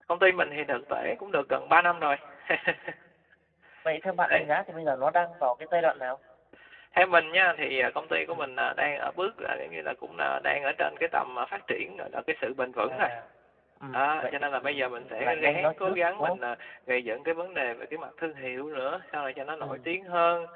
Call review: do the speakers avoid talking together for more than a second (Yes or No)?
No